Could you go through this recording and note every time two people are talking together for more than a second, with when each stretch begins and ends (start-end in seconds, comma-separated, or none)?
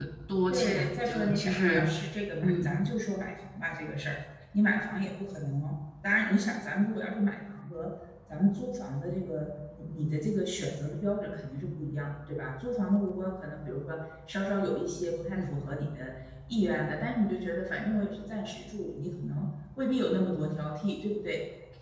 0.5-1.9